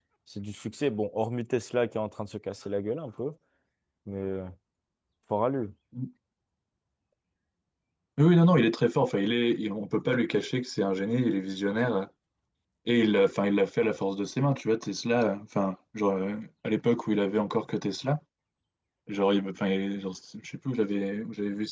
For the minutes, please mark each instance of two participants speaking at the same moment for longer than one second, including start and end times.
none

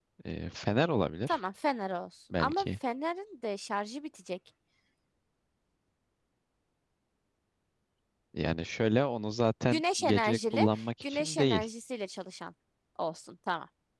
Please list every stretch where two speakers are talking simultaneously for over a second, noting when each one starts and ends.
9.7-11.7

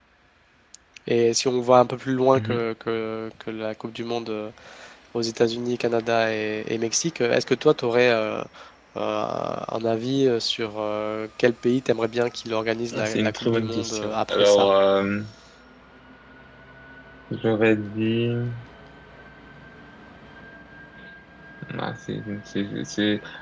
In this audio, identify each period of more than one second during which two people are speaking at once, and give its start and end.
12.9-14.7

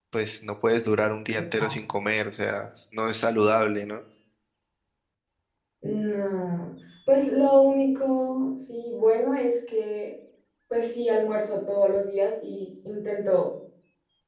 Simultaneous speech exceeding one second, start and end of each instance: none

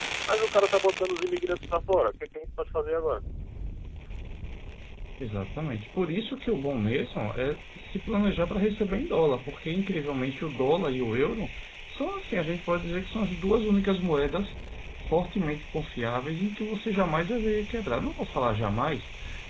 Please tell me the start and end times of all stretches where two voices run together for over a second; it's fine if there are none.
none

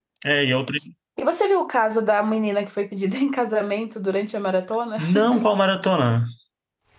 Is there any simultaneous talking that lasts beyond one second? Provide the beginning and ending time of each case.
none

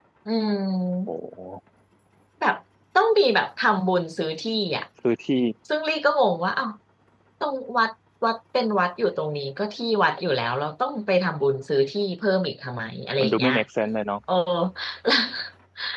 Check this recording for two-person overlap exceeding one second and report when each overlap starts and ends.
none

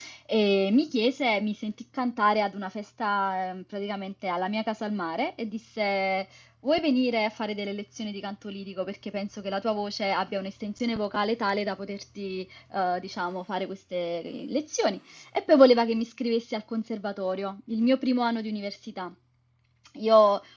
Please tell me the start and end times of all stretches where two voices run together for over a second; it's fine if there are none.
none

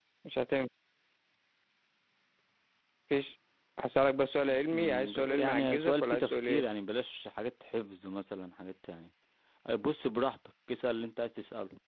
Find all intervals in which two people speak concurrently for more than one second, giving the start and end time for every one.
4.5-6.7

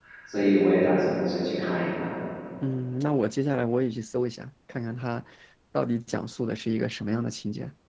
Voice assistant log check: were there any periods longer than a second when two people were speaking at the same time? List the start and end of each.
none

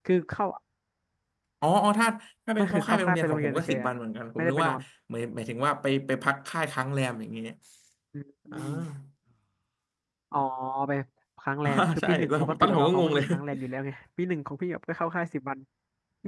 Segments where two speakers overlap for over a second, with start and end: 2.6-3.9, 11.6-13.2

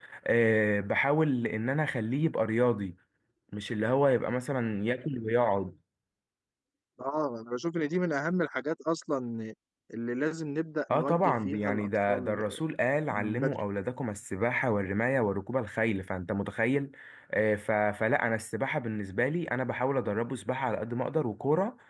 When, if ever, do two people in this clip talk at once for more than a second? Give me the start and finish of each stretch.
10.9-12.6

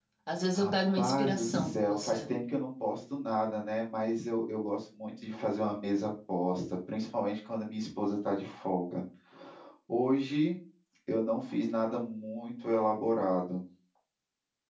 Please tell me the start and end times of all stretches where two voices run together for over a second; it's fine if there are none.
0.6-2.3

